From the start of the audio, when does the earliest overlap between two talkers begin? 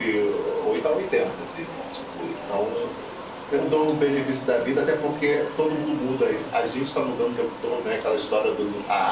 none

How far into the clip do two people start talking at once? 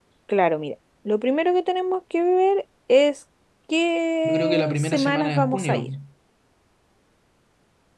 4 s

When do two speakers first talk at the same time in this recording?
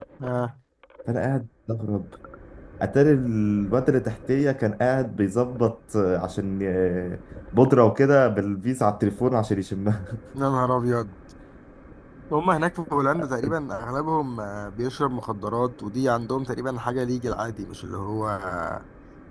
none

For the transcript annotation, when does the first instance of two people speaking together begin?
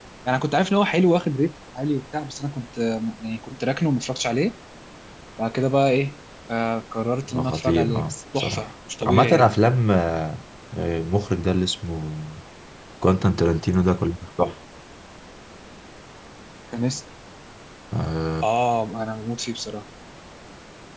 7 s

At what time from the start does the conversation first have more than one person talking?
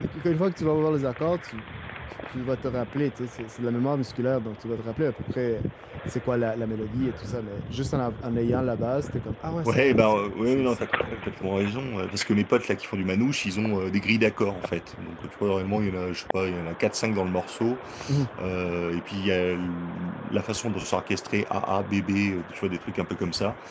10 s

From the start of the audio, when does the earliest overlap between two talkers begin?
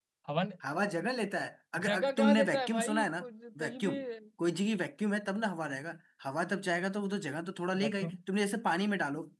2 s

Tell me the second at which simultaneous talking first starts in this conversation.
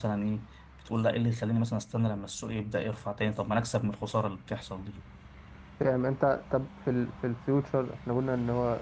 none

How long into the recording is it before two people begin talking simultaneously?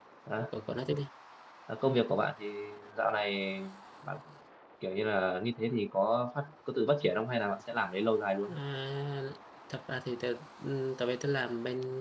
none

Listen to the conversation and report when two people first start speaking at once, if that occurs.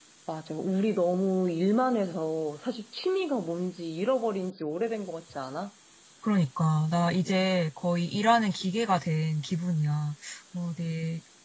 none

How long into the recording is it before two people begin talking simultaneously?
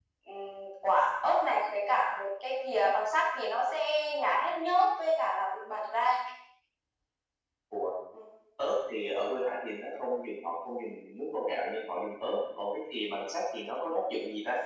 none

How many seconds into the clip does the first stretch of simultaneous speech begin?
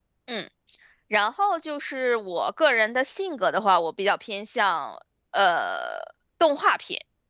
none

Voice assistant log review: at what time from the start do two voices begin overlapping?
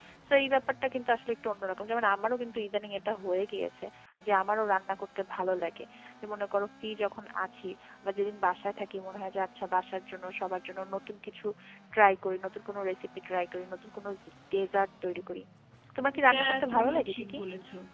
16 s

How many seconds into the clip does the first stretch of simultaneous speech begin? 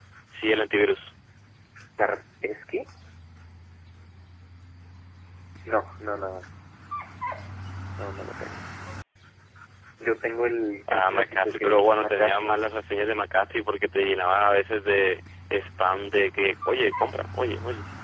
11 s

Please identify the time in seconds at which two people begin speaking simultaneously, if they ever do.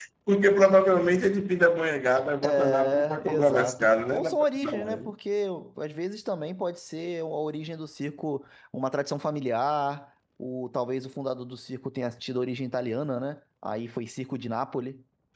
2 s

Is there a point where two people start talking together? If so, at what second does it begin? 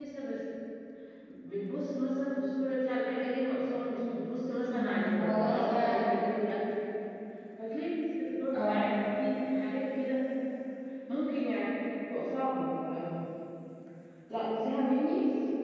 5 s

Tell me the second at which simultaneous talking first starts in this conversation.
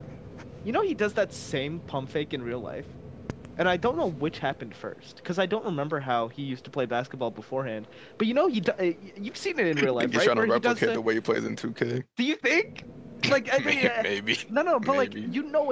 10 s

